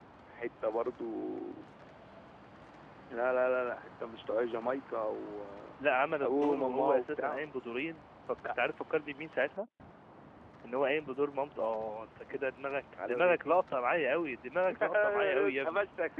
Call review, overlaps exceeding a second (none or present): present